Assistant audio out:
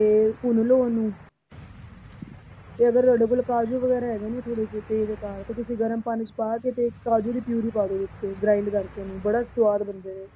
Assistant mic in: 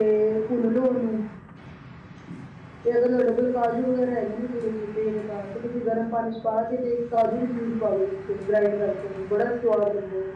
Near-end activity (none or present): none